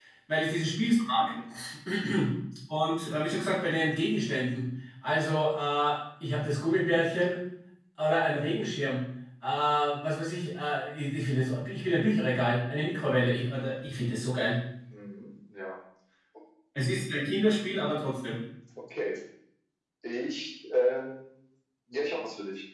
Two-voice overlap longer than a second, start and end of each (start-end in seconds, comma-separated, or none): none